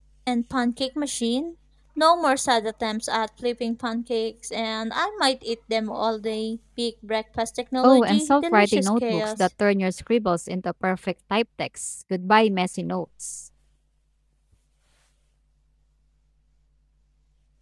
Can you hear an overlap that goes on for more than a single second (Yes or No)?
Yes